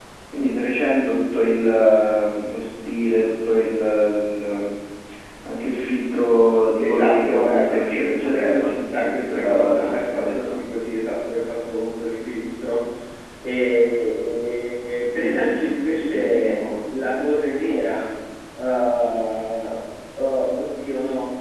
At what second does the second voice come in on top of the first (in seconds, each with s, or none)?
6.8 s